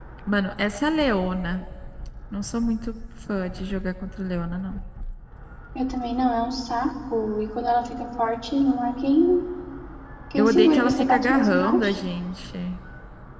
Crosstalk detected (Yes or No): Yes